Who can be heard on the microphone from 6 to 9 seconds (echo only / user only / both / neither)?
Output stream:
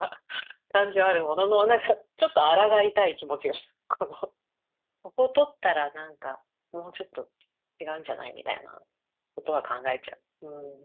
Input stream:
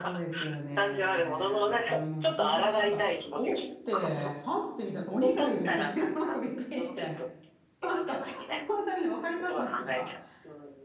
both